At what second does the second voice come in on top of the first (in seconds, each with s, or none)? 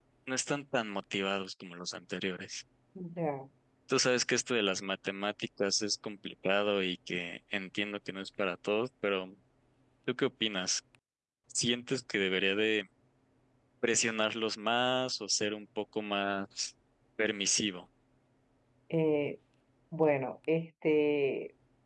none